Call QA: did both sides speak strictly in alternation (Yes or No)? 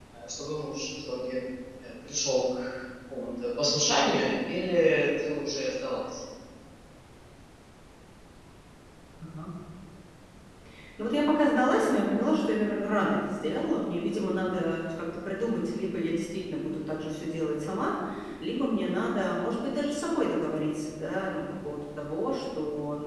Yes